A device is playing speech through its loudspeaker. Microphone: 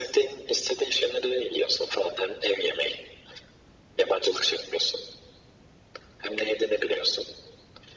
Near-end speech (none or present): none